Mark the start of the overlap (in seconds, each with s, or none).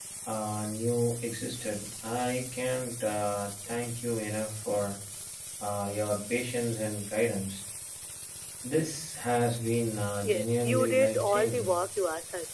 10.2 s